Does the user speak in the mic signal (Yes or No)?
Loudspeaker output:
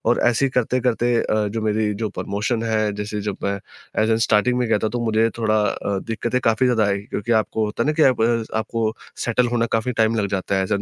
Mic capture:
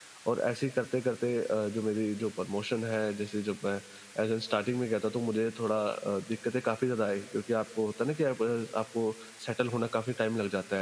No